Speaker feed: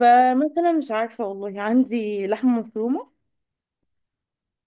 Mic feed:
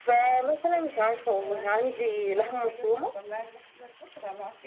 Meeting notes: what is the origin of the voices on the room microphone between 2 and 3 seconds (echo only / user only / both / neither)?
both